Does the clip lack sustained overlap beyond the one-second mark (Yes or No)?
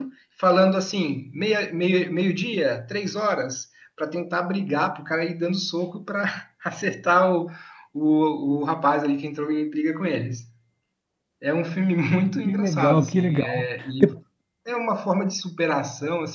No